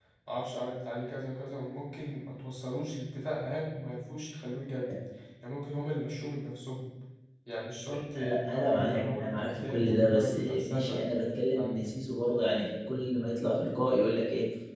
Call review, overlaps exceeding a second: present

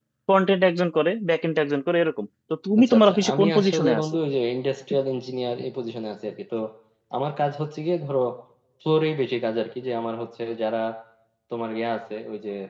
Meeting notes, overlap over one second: present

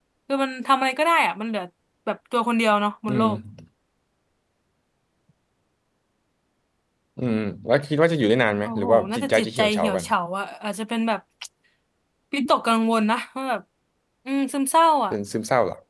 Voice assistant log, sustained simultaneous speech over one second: present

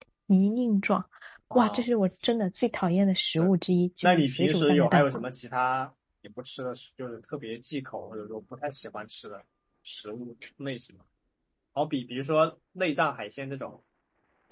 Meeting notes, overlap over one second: present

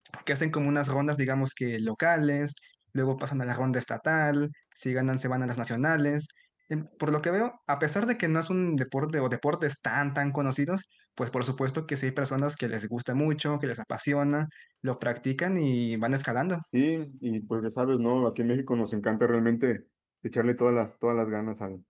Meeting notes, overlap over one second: none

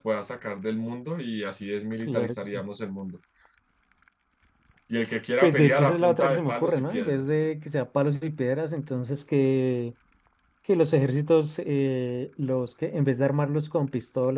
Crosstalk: present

